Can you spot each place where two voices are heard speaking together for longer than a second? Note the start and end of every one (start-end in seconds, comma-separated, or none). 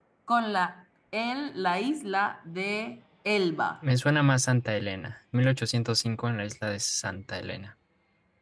none